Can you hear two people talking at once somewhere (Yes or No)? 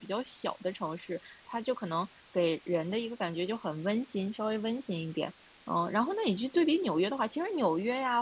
No